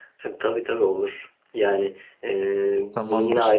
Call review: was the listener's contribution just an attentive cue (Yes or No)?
Yes